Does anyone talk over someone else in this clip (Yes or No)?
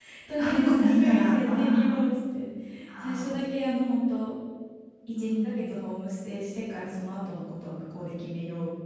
Yes